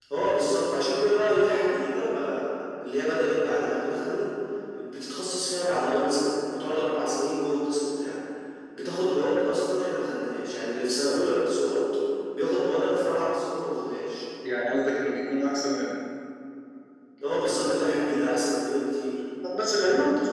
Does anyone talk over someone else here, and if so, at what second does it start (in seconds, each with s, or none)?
none